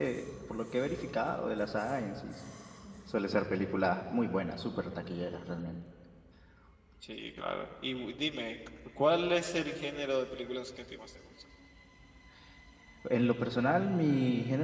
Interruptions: none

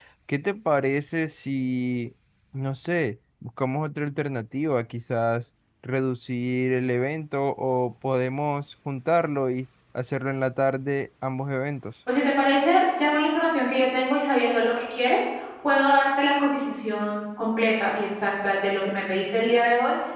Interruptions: none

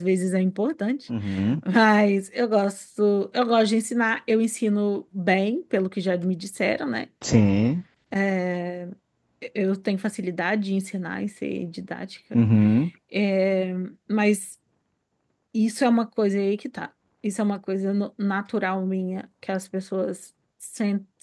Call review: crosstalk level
none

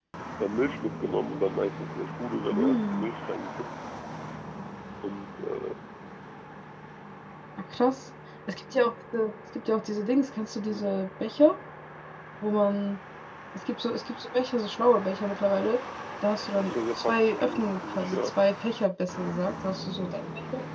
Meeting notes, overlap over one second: present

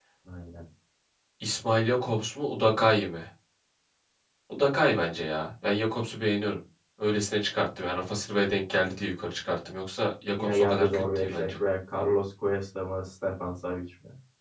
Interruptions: present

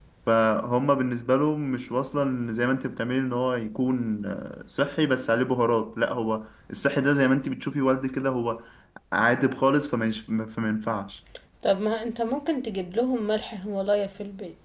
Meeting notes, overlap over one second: none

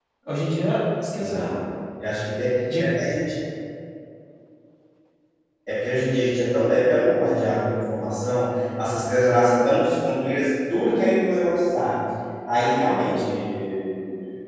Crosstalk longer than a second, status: none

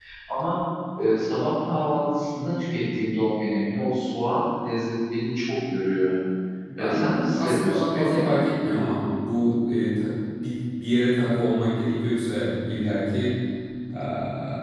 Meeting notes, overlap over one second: present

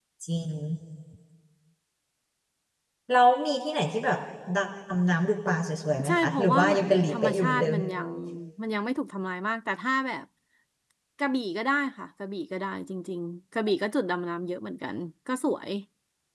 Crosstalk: present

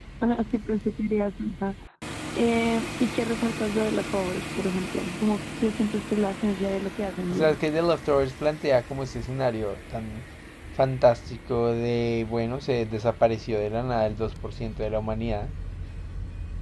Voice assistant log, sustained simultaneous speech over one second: none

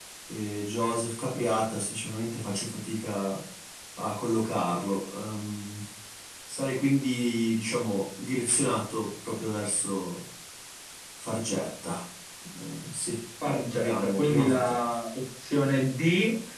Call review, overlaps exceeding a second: present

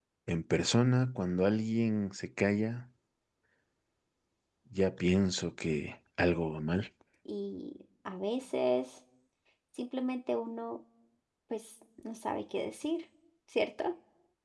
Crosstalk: none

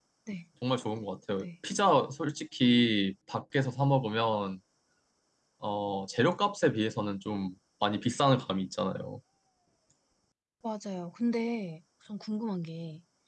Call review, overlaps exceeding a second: none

